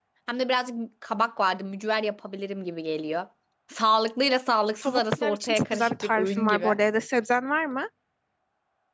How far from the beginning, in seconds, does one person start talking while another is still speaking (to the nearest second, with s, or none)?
5 s